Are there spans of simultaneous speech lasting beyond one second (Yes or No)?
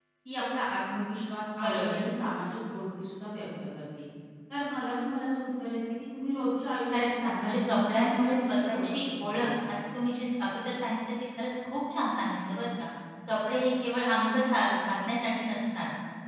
Yes